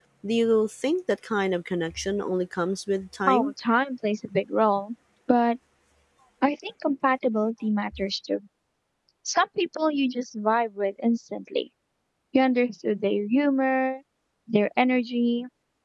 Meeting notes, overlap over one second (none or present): none